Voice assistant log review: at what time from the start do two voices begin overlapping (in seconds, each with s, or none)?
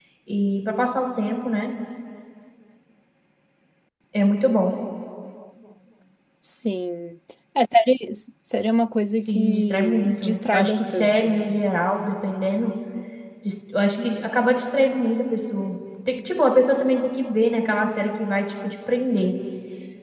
9.3 s